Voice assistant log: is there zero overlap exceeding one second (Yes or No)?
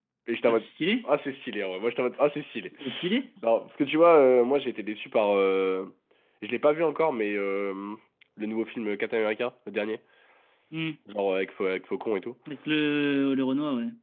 Yes